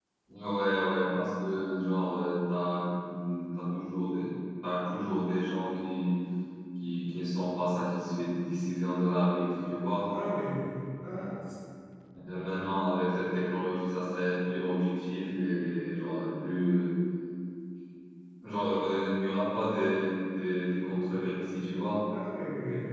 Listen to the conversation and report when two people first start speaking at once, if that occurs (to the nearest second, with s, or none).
none